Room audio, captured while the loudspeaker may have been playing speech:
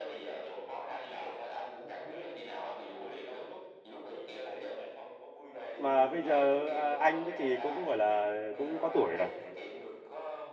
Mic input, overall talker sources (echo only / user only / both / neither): both